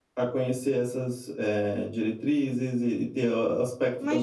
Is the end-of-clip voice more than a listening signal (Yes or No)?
Yes